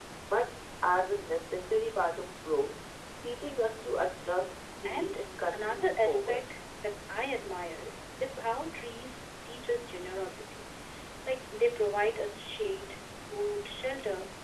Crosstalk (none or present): present